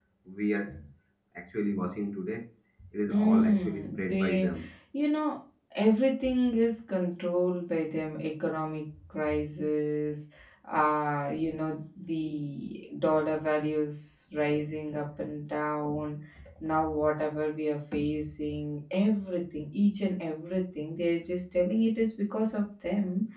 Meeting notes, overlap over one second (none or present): present